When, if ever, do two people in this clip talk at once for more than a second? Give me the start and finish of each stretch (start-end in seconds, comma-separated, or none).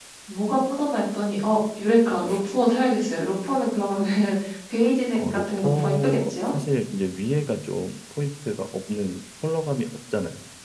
5.2-6.5